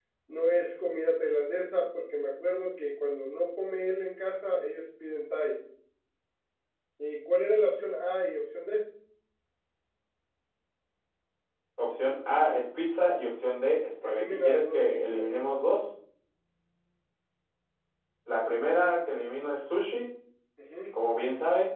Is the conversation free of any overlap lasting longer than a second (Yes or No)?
No